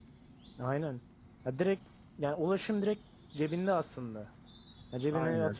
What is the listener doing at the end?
listening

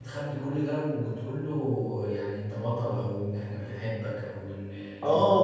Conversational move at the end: taking over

